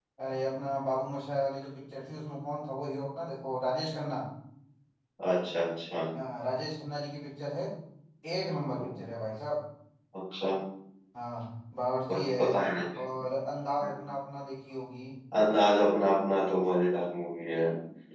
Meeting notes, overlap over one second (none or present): none